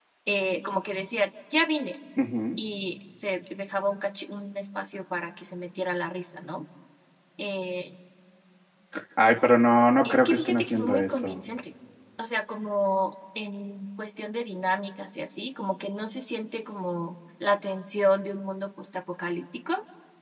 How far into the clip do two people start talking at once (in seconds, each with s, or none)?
10.0 s